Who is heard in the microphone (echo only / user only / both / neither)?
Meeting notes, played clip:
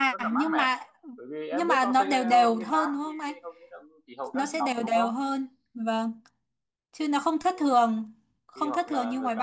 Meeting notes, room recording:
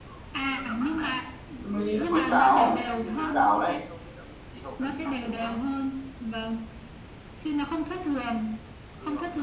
both